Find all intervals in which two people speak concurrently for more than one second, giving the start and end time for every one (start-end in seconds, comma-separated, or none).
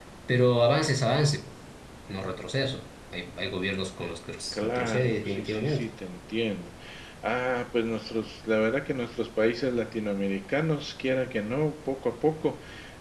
4.5-5.8